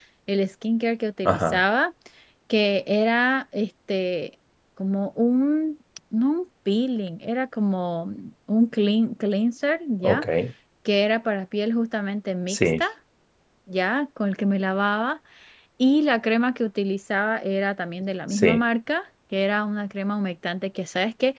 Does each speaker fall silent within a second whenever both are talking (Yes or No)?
Yes